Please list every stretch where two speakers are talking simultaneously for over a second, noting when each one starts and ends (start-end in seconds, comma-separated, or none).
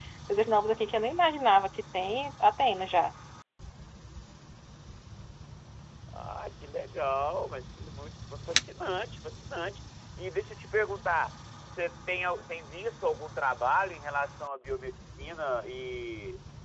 none